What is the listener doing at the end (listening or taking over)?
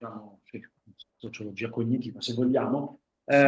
listening